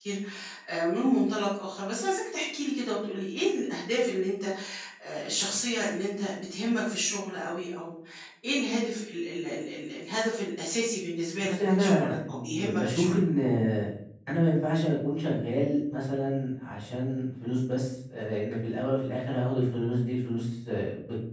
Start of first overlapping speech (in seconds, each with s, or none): 11.4 s